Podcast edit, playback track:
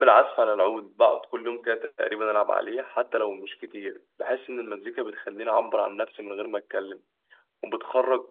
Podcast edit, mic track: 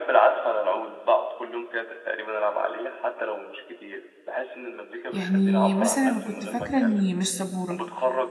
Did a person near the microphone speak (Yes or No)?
Yes